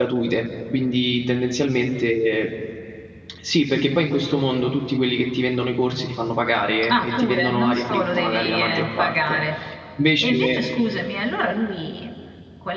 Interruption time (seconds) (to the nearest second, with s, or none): 7 s